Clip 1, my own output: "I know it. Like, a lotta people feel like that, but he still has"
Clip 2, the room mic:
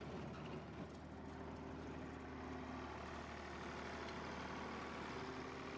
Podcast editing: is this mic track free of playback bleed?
Yes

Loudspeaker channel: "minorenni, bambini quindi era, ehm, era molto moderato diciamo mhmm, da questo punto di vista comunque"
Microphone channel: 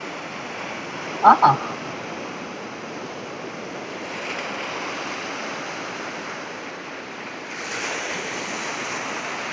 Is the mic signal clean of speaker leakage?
Yes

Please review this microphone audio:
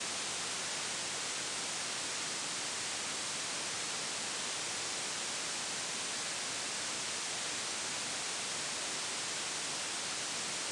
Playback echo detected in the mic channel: No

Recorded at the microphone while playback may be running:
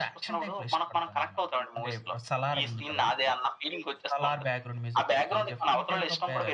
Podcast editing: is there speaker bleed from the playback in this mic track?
Yes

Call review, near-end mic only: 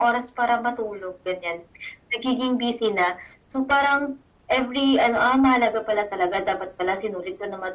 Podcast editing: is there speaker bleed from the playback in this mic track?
Yes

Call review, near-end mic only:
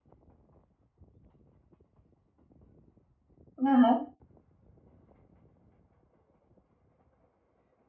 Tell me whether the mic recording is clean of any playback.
Yes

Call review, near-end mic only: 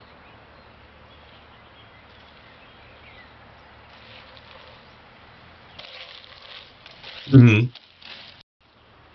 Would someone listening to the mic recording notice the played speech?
No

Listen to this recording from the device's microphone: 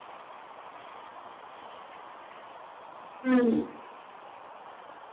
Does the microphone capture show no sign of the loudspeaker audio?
Yes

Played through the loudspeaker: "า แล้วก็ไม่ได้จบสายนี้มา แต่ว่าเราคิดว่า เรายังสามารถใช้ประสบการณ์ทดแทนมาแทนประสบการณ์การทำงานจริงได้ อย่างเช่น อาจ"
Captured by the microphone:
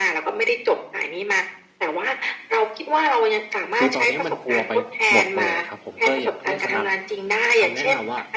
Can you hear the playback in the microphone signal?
Yes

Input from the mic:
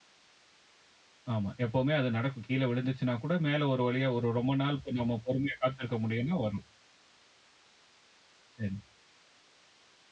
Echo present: No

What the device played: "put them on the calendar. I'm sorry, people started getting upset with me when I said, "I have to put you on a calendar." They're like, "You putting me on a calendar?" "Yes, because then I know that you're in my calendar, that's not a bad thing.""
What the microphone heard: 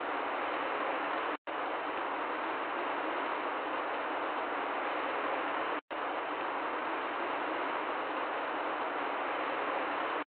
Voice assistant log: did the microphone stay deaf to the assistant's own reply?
Yes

